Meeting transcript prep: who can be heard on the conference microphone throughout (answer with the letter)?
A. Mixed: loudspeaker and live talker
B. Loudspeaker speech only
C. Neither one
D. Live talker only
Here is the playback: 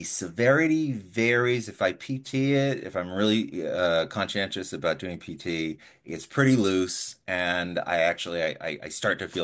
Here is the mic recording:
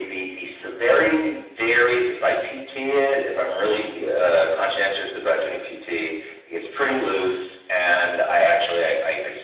B